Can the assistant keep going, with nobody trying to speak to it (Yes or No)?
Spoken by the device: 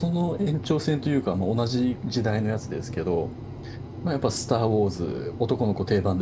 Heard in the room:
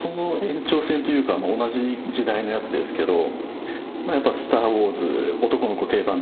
Yes